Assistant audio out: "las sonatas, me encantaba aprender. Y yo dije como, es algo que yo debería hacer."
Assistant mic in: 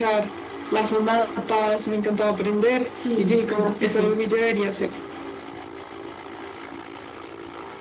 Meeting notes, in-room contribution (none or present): present